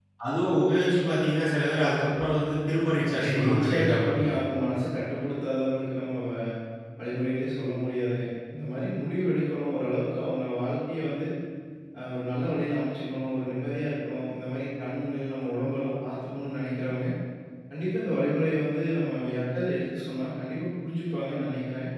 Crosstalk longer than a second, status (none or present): present